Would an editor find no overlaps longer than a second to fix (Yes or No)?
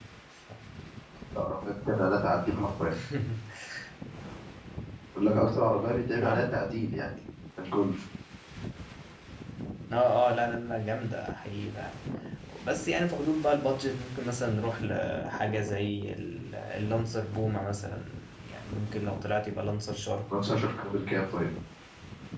Yes